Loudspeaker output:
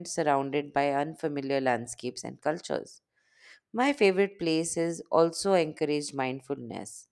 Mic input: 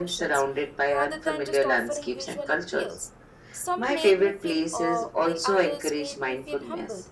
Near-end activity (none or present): present